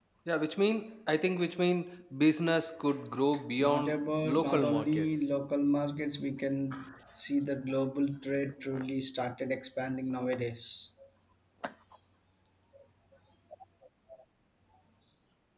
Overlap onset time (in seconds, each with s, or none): 3.6 s